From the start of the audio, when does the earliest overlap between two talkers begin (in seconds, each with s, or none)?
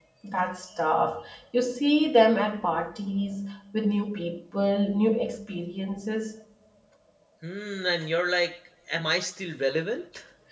none